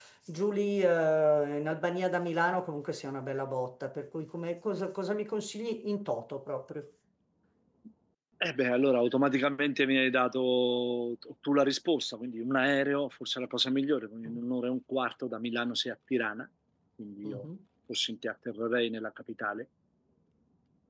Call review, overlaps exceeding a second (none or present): none